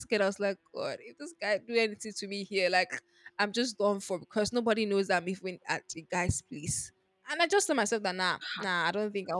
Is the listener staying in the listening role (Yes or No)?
Yes